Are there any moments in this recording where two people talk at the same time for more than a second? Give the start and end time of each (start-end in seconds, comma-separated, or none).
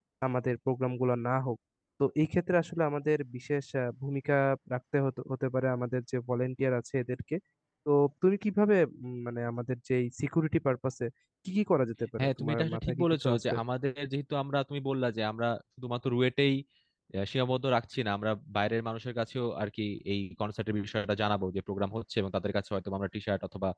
12.2-13.5